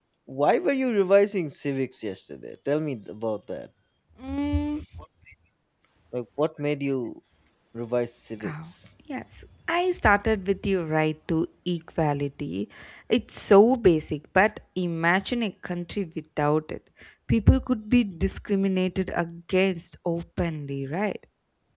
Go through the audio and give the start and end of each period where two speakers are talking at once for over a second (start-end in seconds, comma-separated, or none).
none